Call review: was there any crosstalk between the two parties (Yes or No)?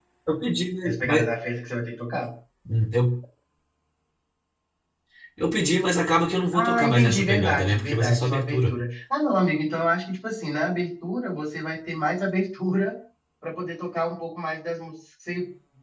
Yes